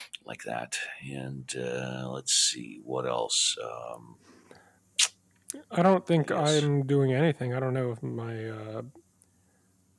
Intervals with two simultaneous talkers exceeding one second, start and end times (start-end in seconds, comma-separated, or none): none